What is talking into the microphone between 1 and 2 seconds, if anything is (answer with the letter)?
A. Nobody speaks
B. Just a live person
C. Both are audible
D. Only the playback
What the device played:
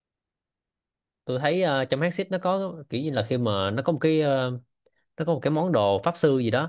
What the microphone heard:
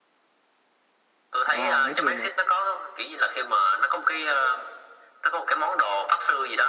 C